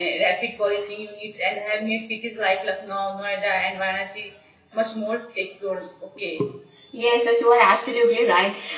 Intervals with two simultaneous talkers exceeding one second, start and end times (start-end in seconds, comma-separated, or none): none